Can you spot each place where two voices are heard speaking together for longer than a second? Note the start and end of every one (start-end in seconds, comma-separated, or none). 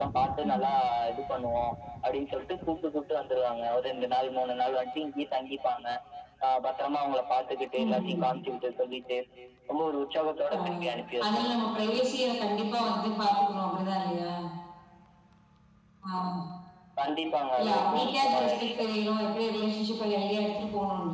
17.6-18.8